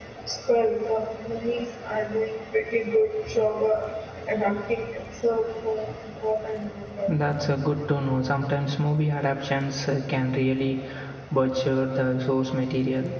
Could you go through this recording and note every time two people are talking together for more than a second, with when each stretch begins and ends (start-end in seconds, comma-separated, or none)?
none